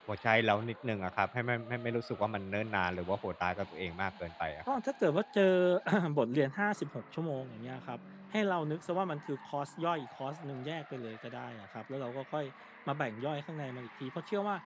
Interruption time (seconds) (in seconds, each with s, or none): none